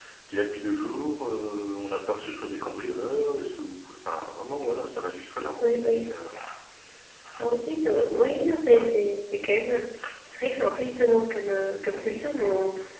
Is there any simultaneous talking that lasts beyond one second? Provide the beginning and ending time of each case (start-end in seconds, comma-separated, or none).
7.7-8.9